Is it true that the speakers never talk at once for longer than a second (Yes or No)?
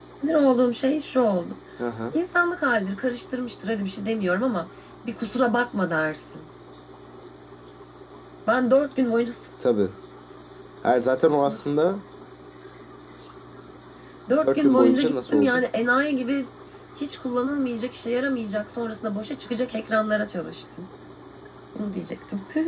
No